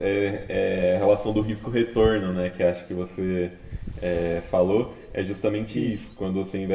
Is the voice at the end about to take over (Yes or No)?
No